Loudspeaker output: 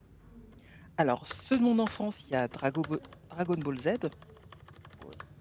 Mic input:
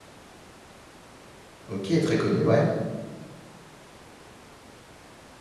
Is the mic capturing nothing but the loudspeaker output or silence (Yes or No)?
No